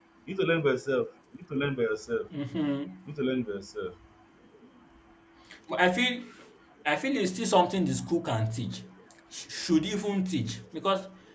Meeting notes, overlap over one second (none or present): none